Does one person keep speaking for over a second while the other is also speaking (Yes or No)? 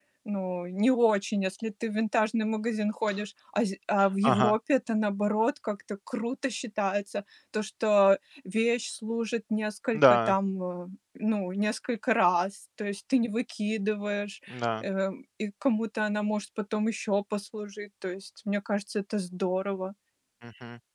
No